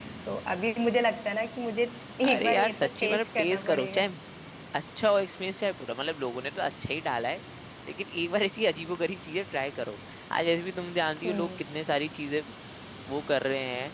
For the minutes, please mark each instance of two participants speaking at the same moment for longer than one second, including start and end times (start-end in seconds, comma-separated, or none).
2.3-4.0